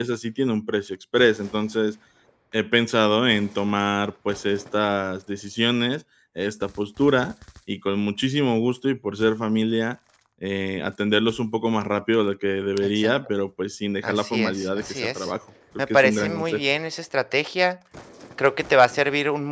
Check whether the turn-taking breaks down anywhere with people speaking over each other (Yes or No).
Yes